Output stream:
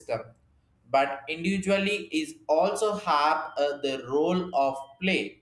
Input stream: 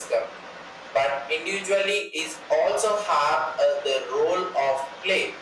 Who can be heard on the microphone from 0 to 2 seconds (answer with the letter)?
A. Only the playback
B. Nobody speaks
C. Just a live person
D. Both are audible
A